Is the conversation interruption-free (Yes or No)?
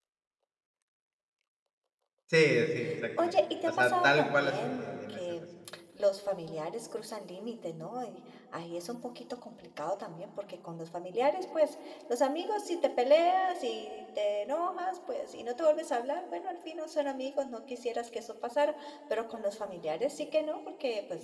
No